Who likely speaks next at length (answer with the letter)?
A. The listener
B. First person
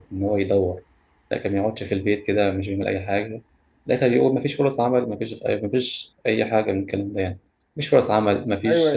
B